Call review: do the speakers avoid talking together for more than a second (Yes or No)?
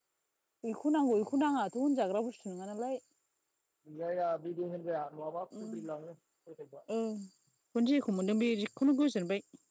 Yes